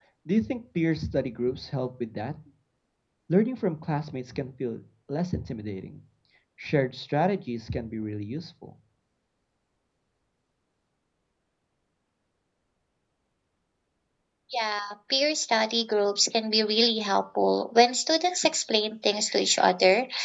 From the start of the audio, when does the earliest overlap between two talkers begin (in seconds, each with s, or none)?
none